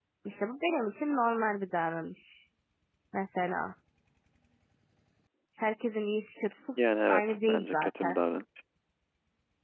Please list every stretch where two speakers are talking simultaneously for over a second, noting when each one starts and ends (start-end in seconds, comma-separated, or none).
6.8-8.2